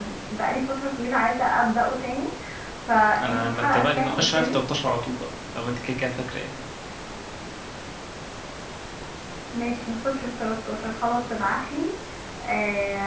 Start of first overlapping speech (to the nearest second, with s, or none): 3 s